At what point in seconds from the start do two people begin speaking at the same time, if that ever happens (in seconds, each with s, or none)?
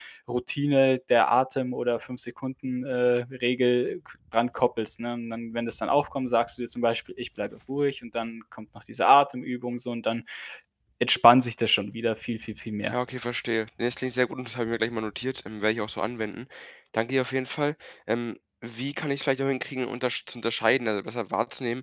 none